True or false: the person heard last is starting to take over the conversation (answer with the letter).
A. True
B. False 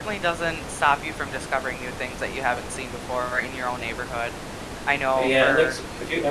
A